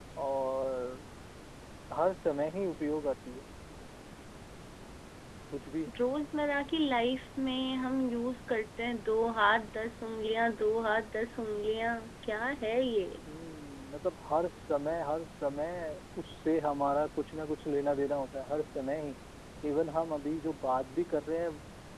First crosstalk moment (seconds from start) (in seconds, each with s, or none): none